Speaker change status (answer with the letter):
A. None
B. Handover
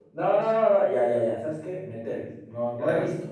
B